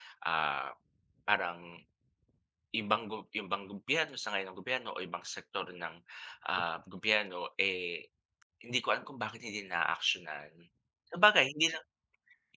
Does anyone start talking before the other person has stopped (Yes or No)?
No